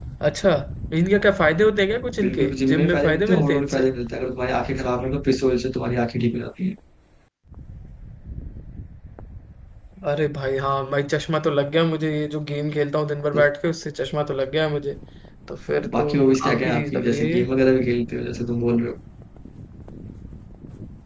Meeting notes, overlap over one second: present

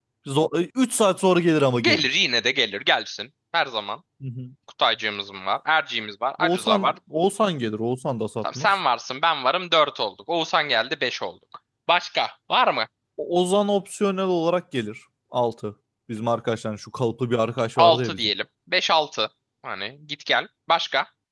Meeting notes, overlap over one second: none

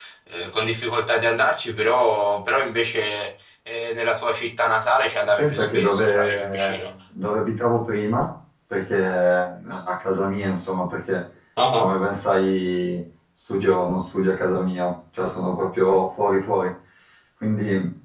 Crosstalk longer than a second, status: present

